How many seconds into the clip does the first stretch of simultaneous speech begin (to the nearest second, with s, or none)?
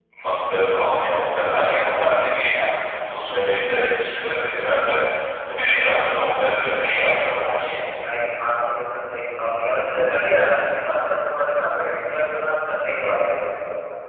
none